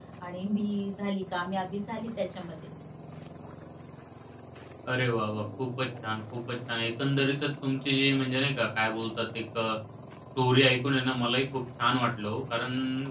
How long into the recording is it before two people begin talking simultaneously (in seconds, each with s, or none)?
none